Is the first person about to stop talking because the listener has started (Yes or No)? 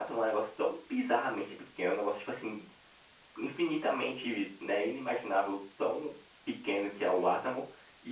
No